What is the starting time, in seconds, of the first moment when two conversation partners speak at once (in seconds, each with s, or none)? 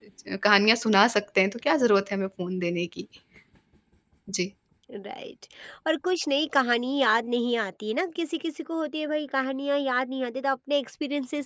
none